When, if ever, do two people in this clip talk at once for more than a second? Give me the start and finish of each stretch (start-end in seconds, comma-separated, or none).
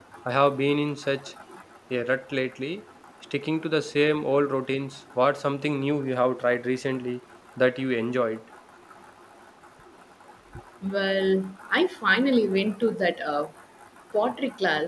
none